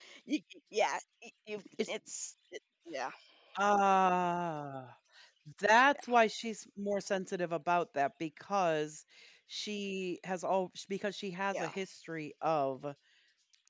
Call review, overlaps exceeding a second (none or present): none